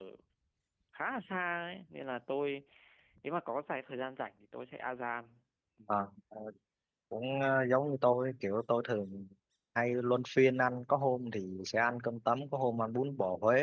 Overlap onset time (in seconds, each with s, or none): none